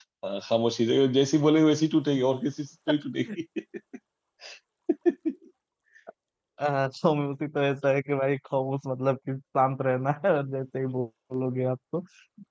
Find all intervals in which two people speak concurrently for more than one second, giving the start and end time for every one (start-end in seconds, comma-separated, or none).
none